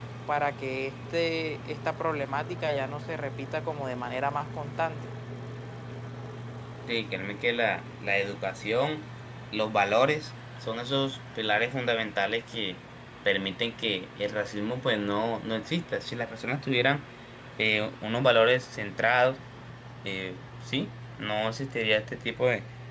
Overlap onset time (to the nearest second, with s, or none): none